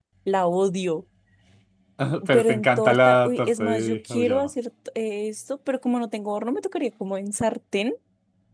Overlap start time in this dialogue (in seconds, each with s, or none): 2.3 s